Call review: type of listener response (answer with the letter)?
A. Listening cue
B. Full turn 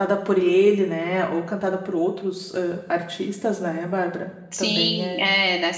B